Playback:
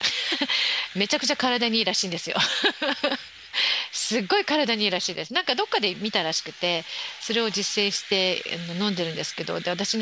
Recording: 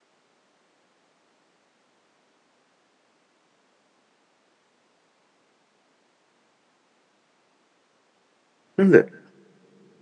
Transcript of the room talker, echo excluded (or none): なんで、